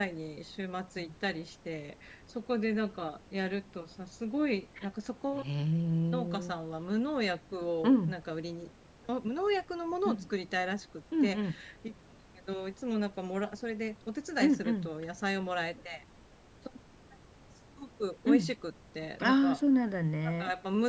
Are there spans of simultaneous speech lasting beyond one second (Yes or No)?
No